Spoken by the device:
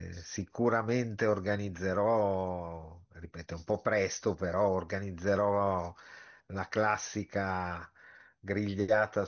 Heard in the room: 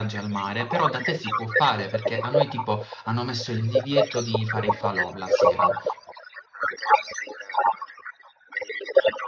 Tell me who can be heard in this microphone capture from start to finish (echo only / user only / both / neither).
both